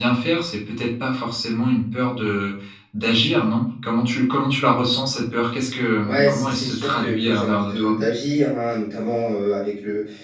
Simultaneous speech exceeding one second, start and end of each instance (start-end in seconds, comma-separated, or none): 6.0-8.0